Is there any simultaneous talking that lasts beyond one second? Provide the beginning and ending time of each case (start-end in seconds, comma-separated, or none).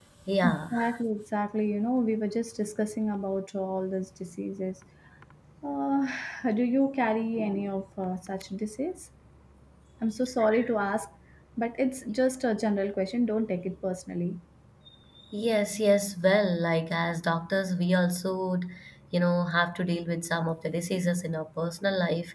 none